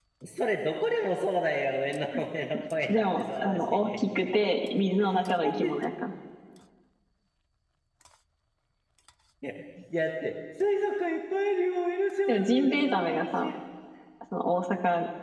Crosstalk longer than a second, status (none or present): present